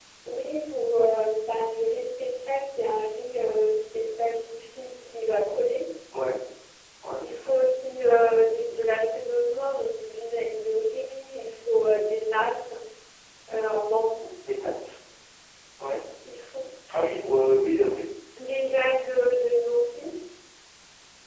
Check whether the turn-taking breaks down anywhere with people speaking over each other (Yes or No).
No